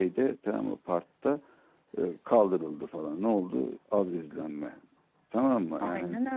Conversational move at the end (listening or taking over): listening